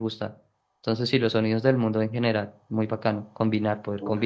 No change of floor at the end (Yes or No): No